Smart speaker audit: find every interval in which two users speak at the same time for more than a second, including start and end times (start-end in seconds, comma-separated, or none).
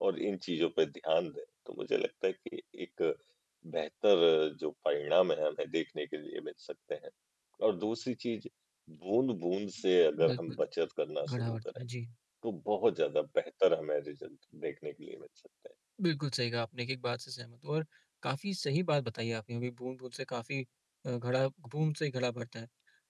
none